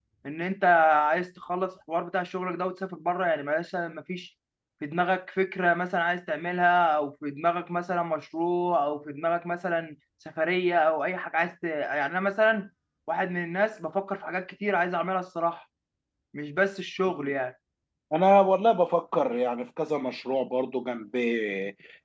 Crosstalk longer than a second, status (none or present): none